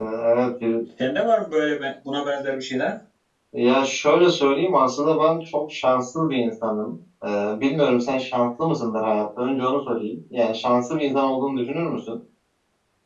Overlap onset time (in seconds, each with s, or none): none